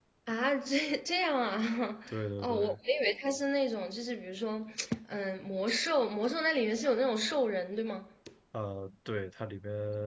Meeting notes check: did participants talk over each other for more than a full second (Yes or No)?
No